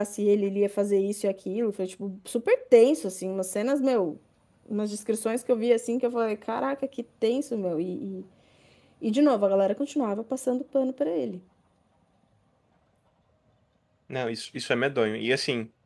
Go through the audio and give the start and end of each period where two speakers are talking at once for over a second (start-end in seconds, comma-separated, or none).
none